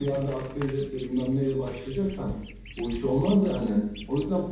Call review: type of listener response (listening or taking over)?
taking over